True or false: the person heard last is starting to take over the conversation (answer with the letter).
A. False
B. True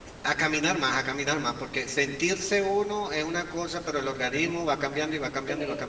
B